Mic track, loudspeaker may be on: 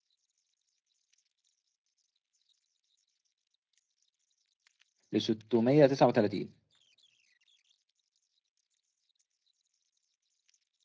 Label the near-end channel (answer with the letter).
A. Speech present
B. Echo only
A